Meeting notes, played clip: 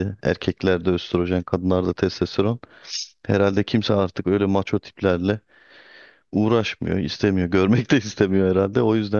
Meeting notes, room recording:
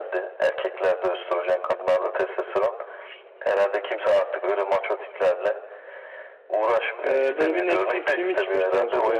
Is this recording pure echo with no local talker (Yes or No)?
No